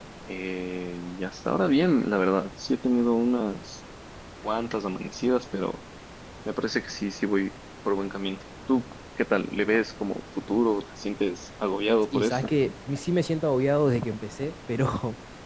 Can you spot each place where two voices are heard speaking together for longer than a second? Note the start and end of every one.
none

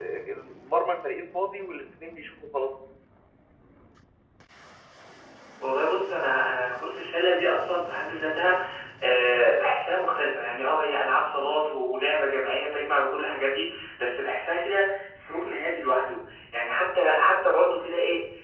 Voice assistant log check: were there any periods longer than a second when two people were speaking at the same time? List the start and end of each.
none

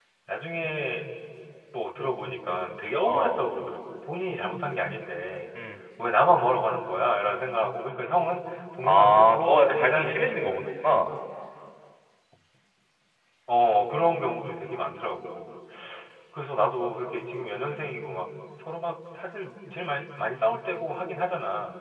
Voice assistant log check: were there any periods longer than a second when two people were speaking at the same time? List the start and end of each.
8.8-11.0

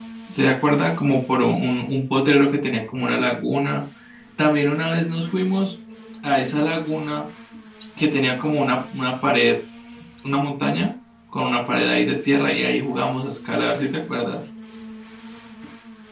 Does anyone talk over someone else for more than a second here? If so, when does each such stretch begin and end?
none

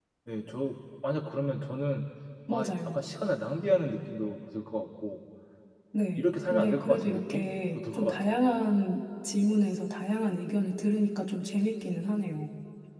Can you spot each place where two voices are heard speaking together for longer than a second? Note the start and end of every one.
6.2-8.4

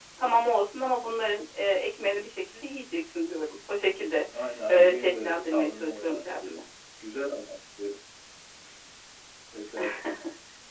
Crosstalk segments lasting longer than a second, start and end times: 4.7-6.3

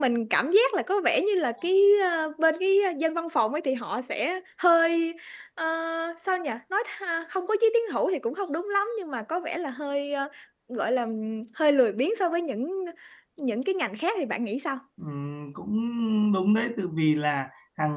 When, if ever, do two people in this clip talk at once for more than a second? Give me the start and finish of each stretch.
none

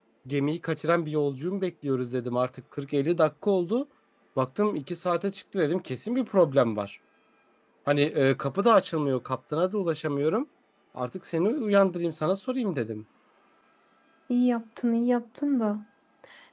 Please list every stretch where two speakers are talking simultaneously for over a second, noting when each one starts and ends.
none

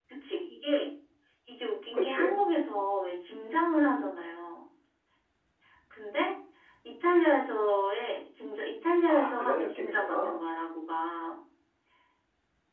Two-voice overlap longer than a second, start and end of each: 9.1-10.4

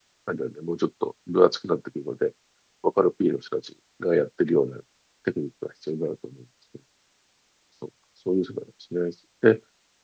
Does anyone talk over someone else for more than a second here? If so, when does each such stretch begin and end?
none

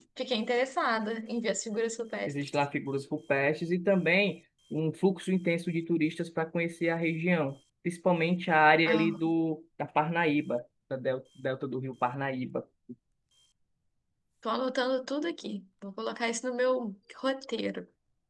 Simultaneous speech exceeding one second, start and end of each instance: none

